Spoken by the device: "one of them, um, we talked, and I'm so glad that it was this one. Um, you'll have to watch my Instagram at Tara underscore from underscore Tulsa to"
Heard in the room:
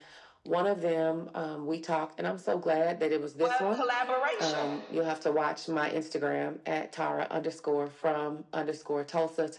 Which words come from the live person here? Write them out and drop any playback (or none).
Well, collaboration,